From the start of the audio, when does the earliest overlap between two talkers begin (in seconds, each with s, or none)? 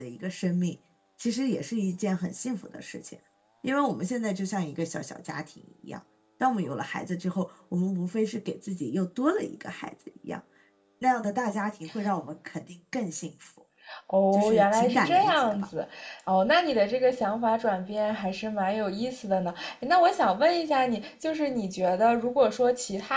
14.3 s